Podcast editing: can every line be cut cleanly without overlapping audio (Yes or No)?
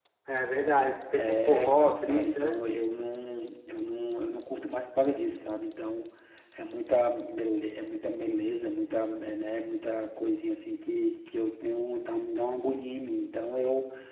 No